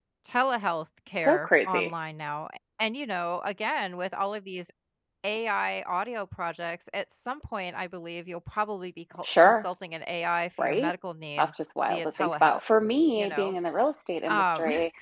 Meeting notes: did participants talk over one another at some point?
Yes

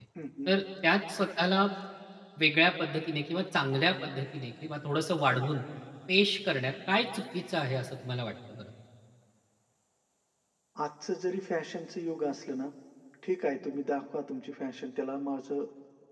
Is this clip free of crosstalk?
Yes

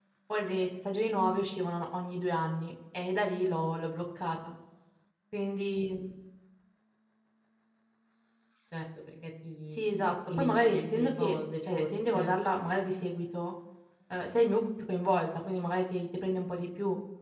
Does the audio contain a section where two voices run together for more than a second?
Yes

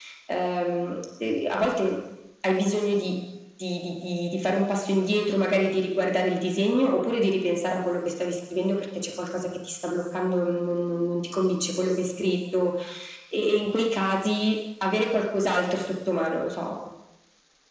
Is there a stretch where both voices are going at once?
No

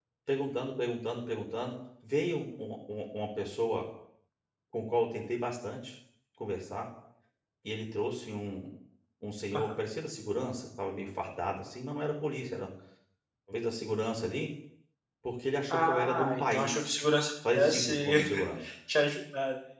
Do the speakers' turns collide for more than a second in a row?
Yes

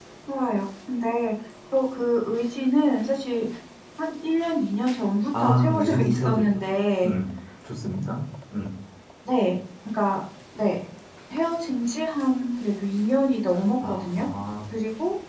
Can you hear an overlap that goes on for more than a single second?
Yes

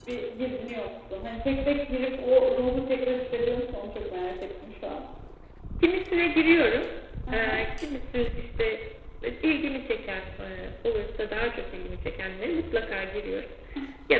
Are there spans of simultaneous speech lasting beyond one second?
No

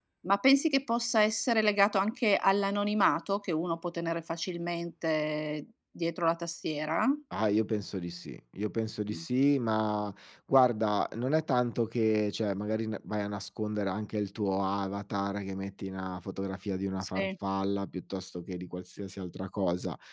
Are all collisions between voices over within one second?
Yes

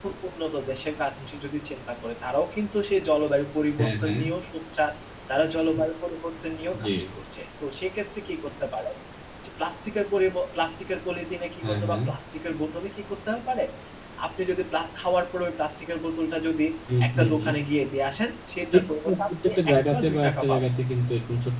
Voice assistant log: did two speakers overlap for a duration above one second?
Yes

